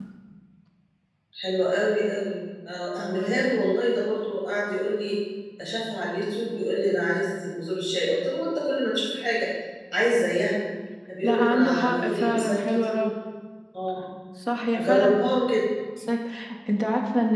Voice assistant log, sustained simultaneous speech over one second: present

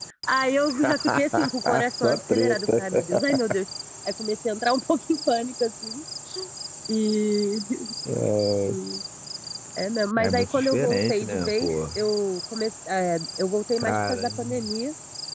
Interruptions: present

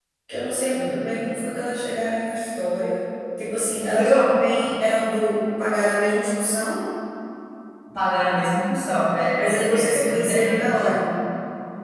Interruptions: present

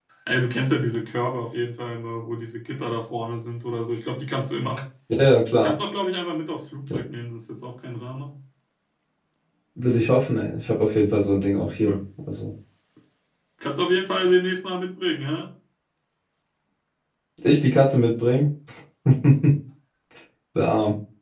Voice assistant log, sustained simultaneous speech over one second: none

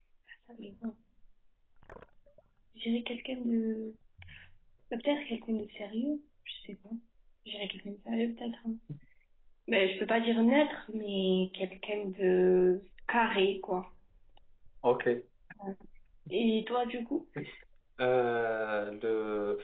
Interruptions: none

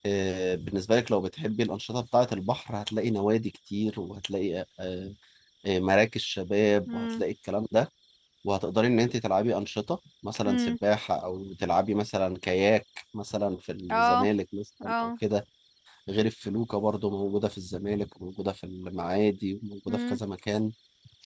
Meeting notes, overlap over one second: none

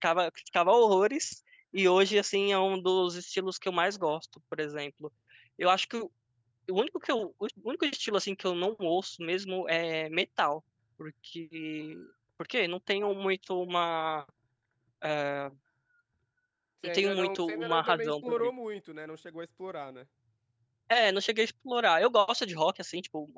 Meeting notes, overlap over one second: present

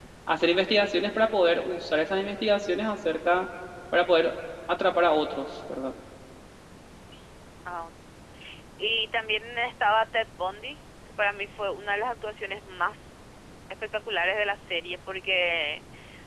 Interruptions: none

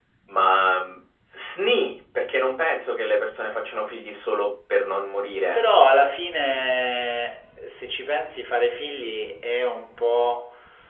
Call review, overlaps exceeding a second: none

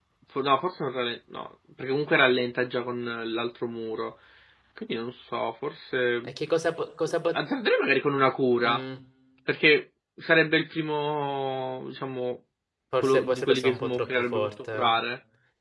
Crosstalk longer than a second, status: present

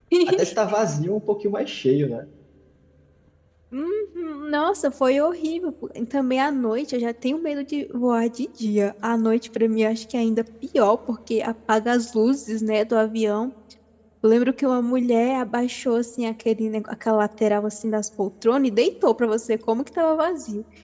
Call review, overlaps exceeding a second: none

